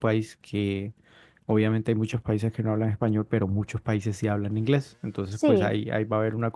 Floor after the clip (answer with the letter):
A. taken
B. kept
B